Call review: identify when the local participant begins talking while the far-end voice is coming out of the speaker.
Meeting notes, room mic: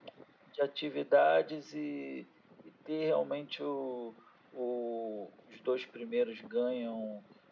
none

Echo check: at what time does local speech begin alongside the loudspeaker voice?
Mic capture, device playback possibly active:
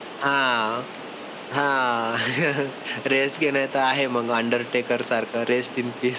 none

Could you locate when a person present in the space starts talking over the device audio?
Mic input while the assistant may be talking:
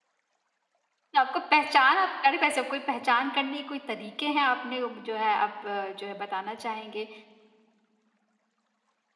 1.1 s

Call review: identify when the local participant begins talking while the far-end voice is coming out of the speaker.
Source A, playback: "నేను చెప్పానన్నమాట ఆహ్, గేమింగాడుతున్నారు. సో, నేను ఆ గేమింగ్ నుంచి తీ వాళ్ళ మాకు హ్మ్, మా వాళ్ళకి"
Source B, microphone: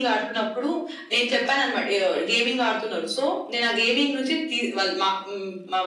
none

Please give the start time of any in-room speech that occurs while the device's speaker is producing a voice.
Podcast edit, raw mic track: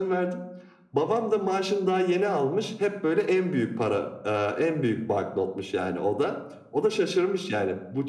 none

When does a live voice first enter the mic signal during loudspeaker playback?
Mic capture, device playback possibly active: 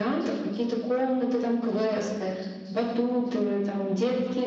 none

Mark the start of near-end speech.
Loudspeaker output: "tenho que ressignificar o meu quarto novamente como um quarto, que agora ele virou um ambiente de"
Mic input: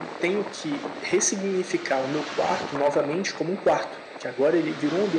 none

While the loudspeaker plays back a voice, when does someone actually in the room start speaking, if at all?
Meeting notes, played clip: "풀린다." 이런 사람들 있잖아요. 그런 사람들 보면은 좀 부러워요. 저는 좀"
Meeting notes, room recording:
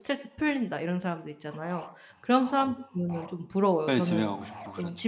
3.8 s

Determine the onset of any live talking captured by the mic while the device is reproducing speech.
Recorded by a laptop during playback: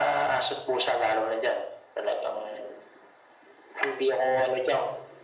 none

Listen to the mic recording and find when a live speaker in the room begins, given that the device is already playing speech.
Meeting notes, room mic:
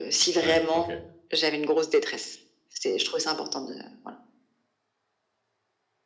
0.4 s

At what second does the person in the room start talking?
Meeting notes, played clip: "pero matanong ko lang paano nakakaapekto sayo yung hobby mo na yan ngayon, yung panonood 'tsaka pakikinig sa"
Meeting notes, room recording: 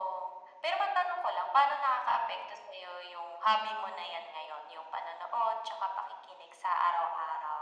none

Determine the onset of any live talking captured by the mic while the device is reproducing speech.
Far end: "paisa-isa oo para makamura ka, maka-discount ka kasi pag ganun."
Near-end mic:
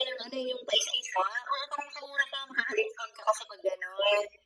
none

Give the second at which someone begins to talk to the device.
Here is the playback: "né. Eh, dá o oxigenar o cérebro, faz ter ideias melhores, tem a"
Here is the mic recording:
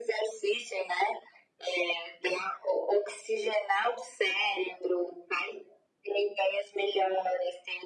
none

